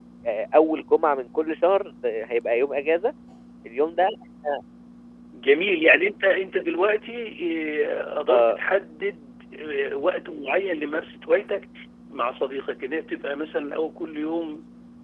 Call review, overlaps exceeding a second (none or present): none